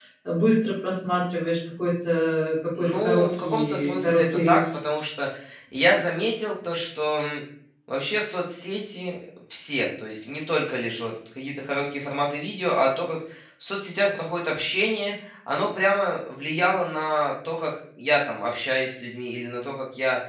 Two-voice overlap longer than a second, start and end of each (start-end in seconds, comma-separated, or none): 2.8-4.6